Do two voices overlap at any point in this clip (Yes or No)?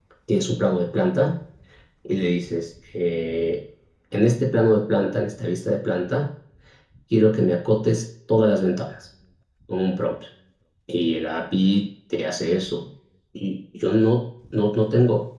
No